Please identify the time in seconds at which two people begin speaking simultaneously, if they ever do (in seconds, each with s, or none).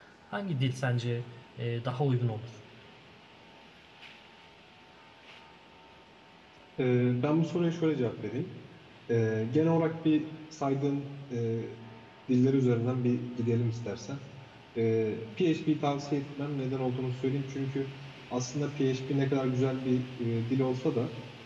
none